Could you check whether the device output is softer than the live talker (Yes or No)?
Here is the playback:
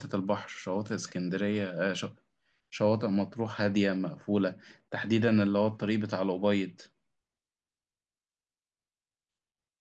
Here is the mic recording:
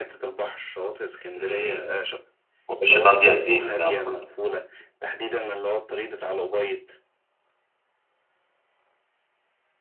Yes